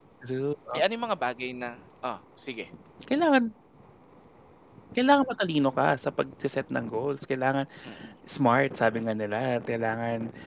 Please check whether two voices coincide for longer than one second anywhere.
No

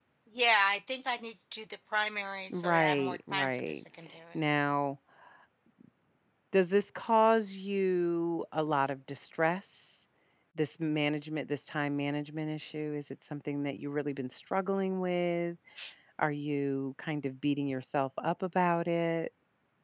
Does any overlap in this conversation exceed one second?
Yes, from 2.5 s

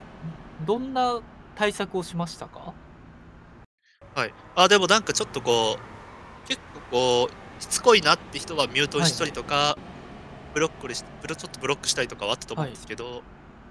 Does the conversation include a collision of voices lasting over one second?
No

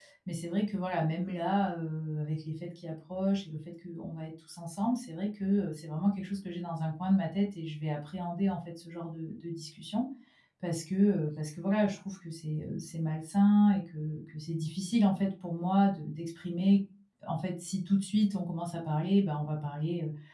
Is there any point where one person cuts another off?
No

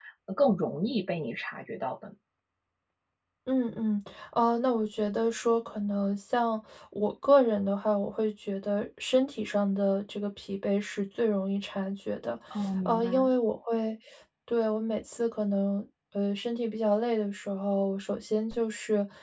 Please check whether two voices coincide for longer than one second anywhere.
No

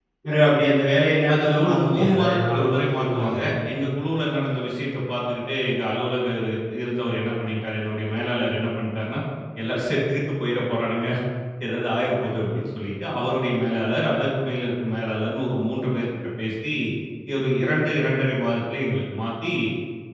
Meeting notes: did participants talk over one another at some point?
Yes, from 1.3 s

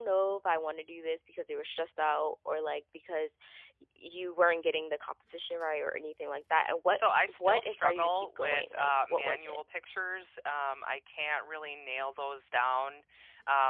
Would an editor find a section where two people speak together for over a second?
Yes, from 7.4 s

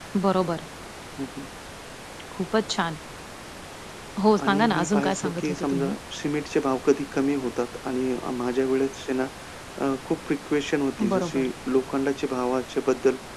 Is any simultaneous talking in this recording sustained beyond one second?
Yes, from 4.4 s

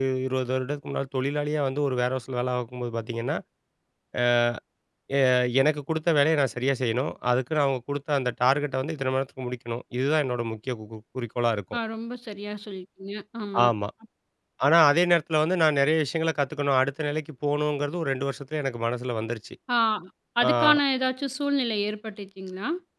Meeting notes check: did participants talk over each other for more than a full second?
No

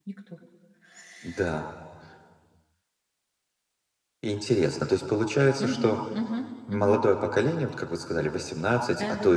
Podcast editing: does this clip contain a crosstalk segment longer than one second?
No

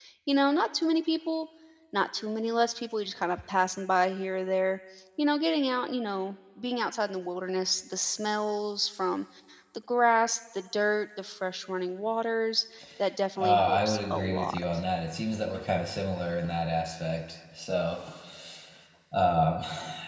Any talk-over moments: Yes, from 13.4 s

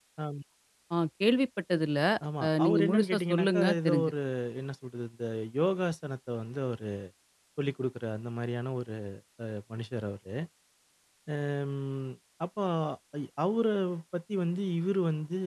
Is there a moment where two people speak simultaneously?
Yes, from 2.4 s

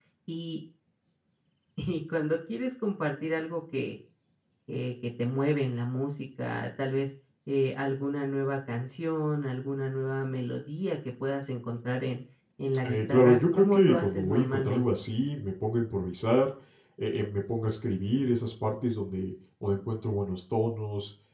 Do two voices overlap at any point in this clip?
Yes, from 12.8 s

